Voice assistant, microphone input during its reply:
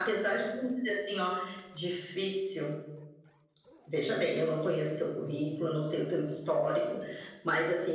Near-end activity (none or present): none